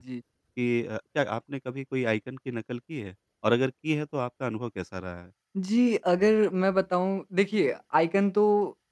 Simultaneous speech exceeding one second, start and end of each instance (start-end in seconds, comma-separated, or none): none